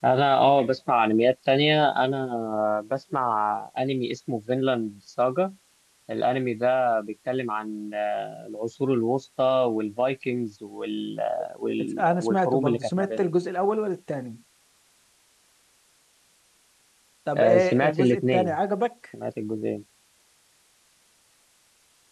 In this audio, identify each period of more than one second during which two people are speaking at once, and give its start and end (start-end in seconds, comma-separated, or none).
12.0-13.3, 17.4-18.6